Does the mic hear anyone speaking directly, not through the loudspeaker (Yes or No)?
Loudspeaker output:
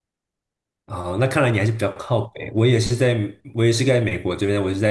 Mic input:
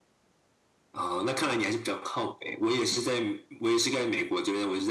No